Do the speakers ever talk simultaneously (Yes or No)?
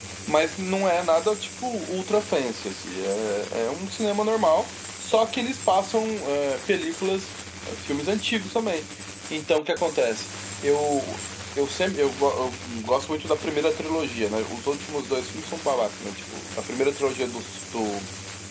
No